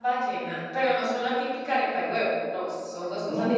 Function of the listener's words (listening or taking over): taking over